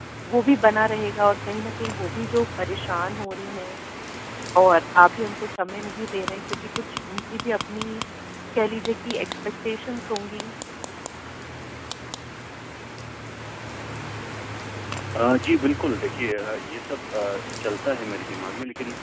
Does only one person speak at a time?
Yes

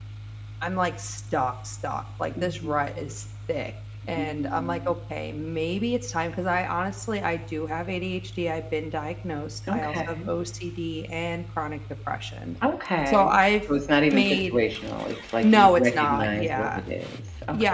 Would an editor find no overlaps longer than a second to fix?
No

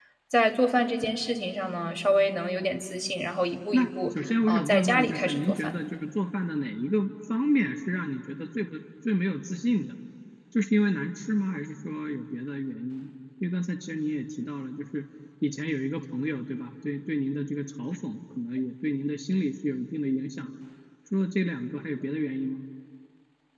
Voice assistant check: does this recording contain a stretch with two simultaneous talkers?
Yes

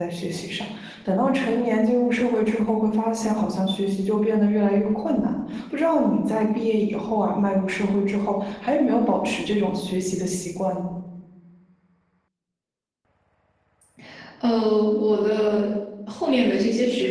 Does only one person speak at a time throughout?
Yes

